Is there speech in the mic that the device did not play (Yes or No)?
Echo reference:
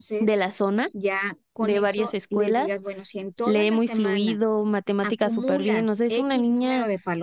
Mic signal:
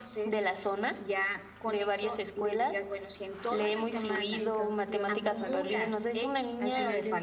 Yes